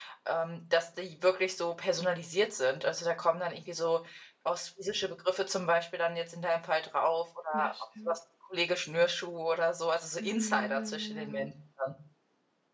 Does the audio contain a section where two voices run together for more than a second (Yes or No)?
Yes